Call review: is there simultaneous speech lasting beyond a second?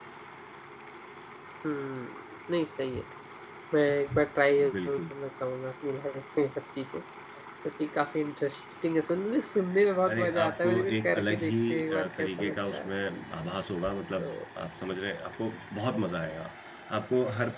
Yes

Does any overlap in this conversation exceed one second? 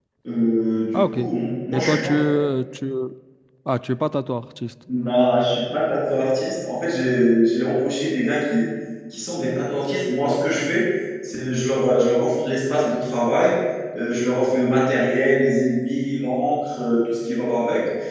No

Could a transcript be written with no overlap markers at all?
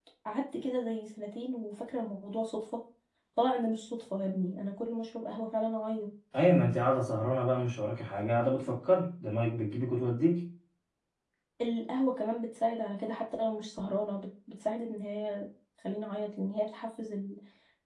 Yes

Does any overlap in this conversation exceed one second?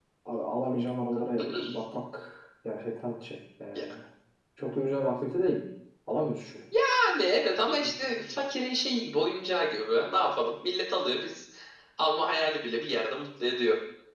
No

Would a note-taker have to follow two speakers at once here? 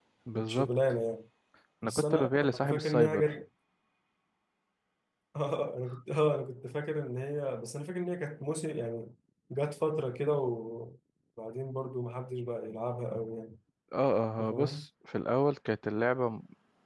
Yes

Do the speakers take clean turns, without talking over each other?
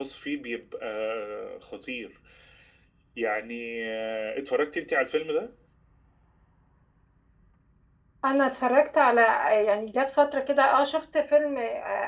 Yes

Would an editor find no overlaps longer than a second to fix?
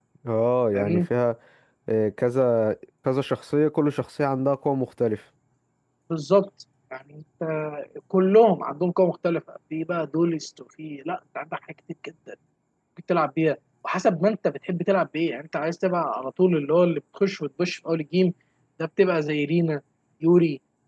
Yes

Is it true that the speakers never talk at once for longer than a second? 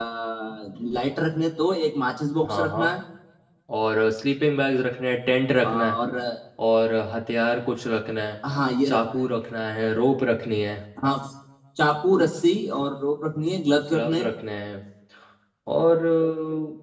Yes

